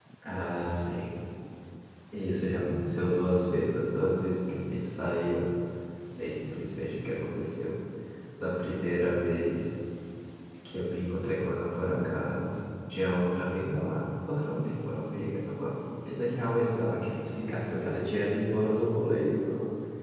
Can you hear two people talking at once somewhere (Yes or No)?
No